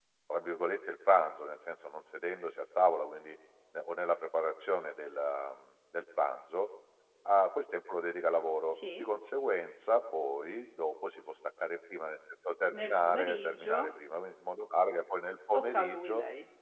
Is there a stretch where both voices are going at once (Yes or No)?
Yes